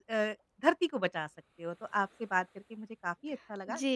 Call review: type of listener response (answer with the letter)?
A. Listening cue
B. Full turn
B